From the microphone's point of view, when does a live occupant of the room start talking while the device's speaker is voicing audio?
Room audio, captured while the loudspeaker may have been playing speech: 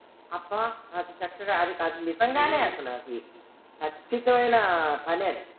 2.4 s

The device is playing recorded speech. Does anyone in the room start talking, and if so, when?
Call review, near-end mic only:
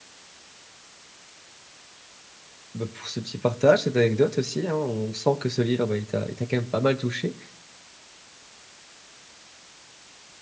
2.7 s

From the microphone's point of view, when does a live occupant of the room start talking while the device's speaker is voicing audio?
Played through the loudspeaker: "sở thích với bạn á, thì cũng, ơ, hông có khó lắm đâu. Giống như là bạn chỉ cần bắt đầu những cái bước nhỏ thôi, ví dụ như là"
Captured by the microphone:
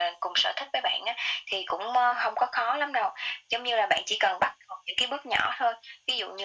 none

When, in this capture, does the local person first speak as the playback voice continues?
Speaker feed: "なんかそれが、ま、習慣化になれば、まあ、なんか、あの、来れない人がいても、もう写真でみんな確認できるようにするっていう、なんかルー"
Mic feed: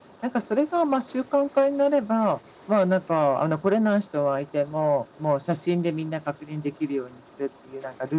none

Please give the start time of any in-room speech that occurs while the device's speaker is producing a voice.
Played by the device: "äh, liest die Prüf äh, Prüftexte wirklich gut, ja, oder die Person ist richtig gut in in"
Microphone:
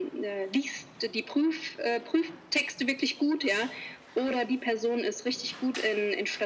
none

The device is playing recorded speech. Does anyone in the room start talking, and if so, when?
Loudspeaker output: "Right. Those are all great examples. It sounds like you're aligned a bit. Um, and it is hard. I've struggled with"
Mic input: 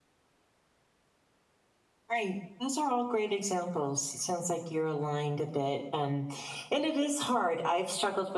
none

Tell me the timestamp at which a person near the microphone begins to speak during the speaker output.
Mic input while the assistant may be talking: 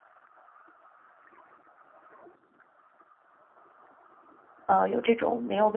4.7 s

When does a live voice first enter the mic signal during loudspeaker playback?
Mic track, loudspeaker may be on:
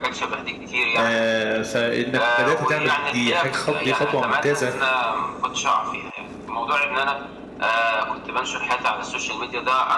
0.9 s

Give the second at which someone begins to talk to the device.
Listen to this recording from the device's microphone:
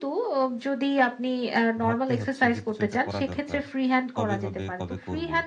1.8 s

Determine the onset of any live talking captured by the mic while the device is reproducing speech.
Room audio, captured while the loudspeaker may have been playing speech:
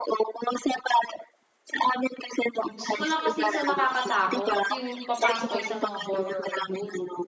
2.6 s

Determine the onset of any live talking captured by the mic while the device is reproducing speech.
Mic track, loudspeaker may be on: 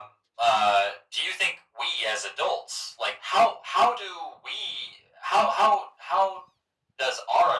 none

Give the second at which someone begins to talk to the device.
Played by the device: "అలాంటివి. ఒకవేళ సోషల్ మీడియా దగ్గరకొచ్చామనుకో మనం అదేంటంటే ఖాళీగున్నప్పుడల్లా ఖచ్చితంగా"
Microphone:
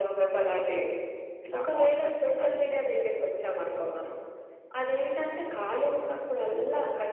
1.5 s

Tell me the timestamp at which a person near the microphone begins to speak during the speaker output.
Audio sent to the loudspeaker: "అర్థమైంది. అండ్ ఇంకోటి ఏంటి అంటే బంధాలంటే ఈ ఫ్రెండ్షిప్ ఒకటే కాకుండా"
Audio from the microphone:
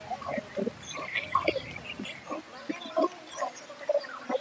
none

